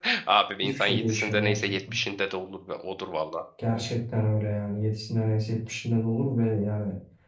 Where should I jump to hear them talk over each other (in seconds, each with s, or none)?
0.6 s